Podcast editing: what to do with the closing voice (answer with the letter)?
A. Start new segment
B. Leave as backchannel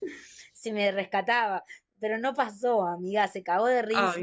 B